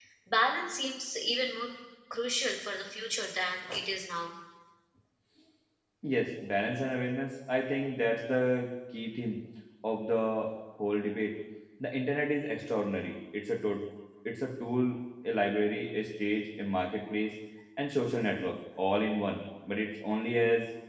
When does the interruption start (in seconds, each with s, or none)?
none